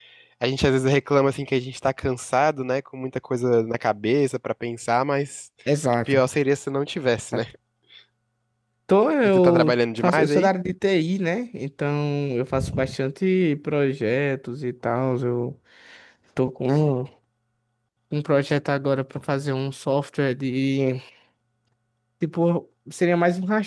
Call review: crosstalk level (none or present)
present